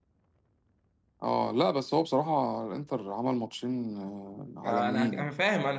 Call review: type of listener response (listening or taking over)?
taking over